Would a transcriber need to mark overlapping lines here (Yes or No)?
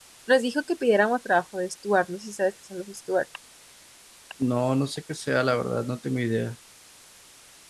No